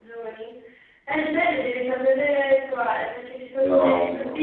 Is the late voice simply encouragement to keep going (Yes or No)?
Yes